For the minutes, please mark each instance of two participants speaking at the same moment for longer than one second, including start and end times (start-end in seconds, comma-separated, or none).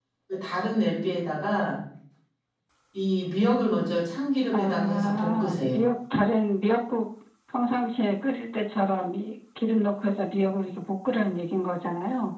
4.5-5.9